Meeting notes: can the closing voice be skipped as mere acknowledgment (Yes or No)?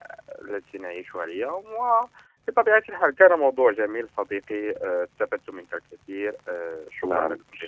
No